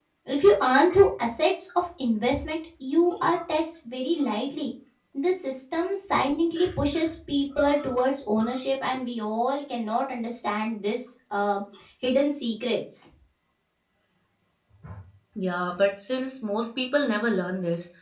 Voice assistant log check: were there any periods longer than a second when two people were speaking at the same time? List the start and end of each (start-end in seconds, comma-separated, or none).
none